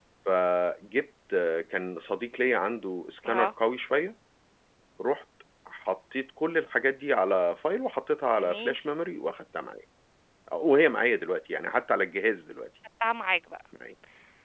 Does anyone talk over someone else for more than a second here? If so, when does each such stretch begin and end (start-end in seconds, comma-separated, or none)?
none